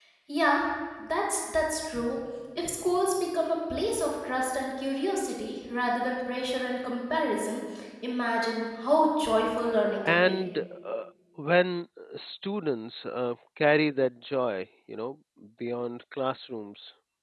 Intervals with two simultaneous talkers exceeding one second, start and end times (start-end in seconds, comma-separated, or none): none